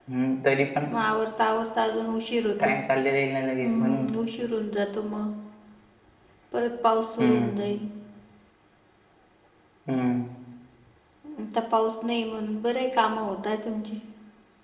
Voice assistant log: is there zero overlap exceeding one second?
Yes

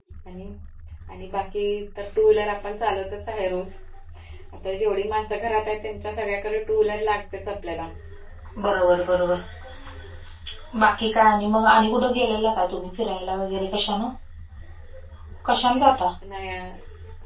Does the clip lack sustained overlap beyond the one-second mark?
Yes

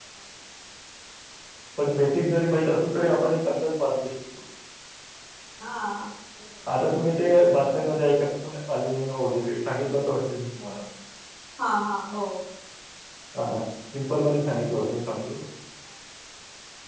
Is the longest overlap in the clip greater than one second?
No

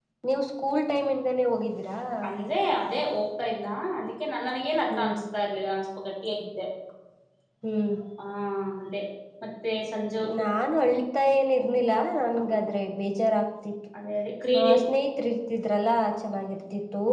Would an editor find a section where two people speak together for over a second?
No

